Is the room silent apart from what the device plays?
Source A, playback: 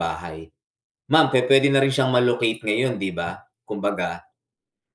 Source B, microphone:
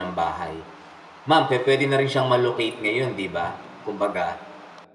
Yes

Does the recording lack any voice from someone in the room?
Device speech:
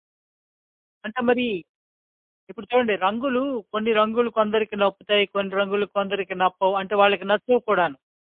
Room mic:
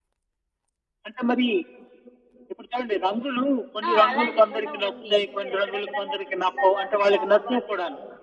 No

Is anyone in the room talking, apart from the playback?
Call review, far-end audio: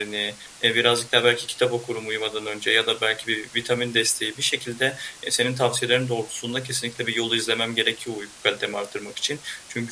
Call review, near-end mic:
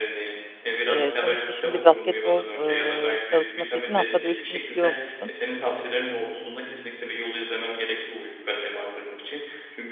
Yes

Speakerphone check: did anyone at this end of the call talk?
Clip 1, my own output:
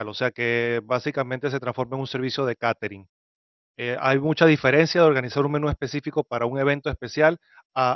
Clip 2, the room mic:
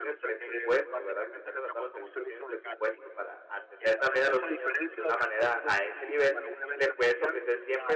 Yes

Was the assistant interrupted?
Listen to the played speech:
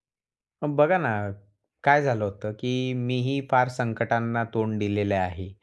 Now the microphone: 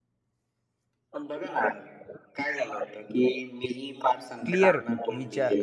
Yes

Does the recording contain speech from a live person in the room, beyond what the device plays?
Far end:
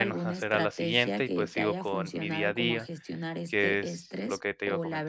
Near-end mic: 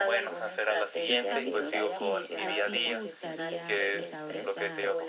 Yes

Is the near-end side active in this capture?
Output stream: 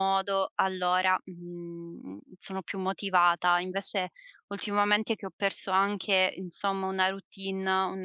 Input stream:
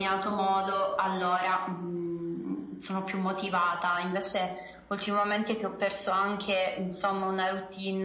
No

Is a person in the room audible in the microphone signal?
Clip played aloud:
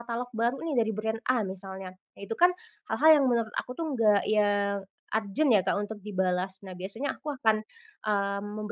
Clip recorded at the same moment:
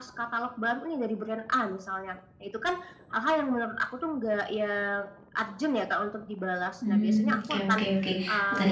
Yes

